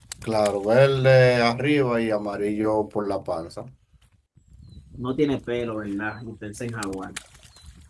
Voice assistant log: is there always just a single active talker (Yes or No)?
Yes